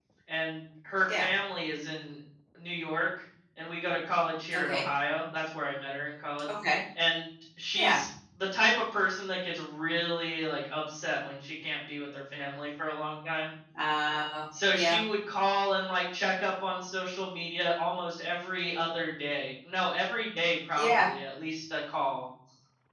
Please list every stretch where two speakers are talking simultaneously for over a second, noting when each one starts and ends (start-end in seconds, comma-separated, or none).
none